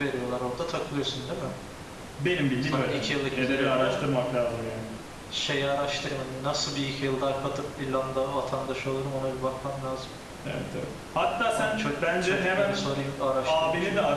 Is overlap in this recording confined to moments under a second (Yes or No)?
No